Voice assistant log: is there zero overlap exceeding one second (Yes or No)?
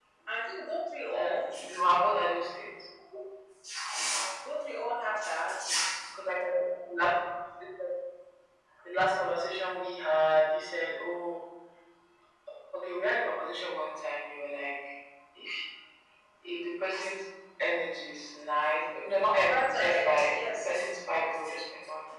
No